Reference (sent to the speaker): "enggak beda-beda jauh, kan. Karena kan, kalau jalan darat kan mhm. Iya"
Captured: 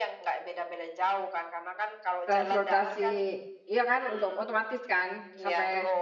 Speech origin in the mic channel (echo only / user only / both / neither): both